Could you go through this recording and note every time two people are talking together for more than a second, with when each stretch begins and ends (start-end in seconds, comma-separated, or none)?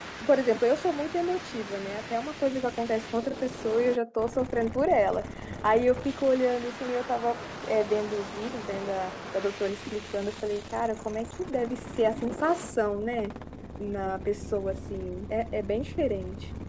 none